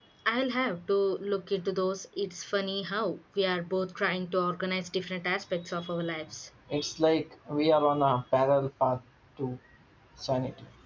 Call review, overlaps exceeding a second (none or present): none